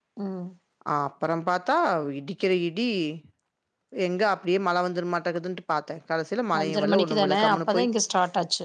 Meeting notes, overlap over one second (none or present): present